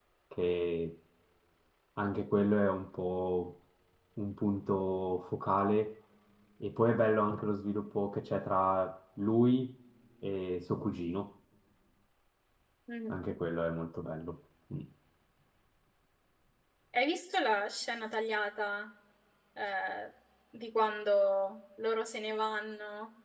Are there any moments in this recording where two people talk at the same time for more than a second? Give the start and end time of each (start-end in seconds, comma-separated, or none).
none